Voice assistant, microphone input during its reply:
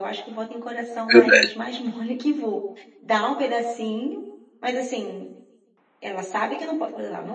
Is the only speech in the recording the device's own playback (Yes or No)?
No